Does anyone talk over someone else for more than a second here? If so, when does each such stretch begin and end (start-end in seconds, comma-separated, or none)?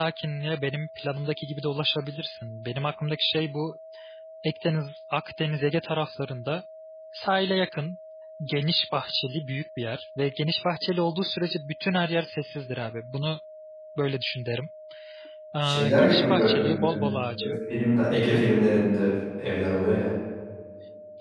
15.6-17.0